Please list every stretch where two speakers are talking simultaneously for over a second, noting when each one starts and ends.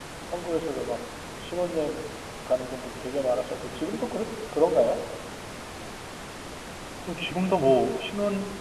none

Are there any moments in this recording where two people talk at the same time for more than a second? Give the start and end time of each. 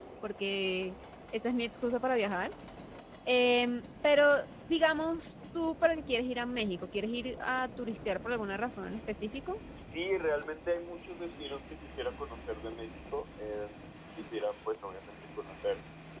none

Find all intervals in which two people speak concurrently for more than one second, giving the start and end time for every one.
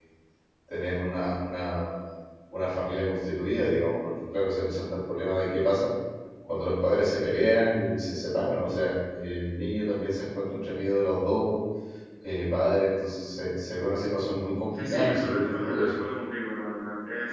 14.7-16.0

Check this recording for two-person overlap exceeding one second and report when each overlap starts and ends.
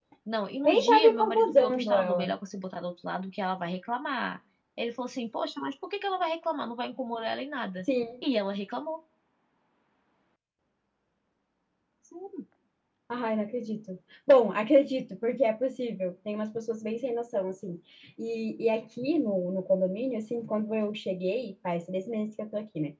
0.7-2.3

